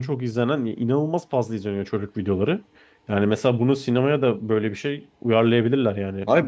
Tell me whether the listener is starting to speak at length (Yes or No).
Yes